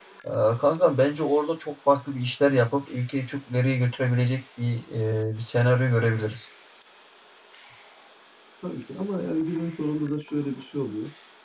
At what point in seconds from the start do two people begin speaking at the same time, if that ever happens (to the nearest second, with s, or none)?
none